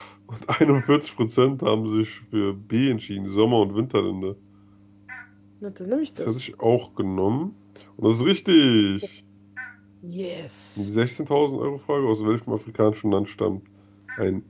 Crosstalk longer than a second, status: none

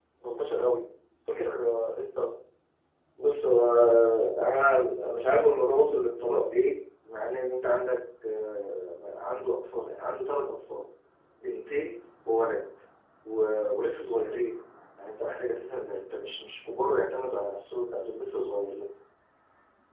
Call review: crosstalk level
none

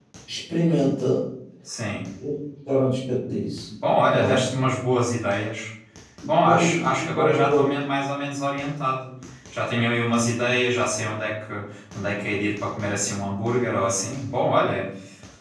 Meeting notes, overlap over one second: present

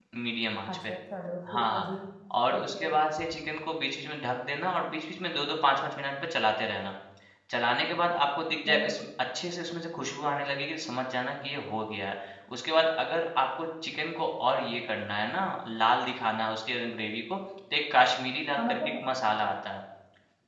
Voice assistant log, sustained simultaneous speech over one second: none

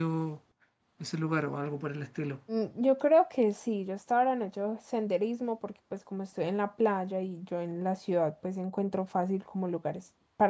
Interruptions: none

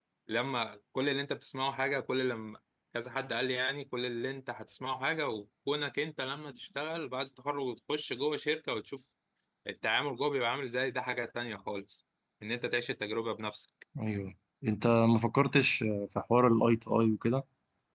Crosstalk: none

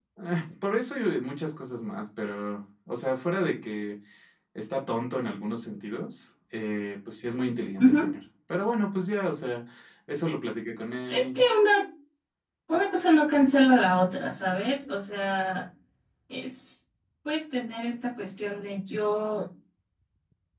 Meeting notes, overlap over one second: none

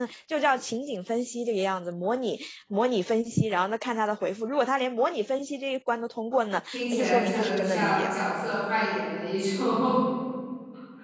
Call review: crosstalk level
present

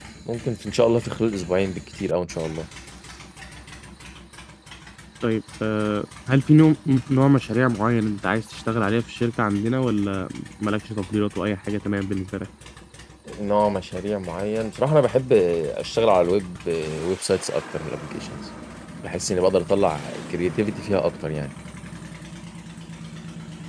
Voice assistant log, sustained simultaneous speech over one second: none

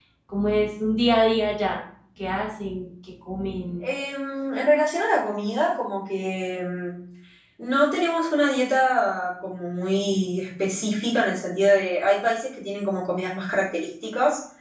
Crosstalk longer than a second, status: none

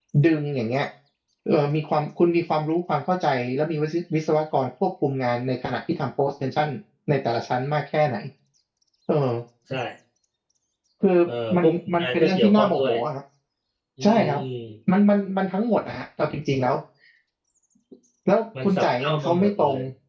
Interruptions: present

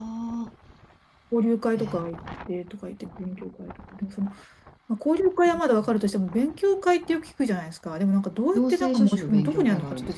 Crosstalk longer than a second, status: present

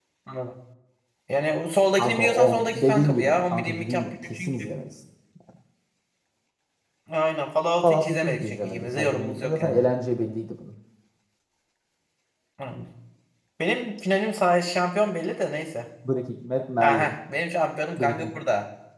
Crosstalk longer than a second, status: present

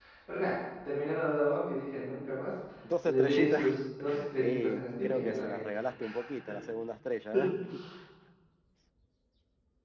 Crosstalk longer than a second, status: present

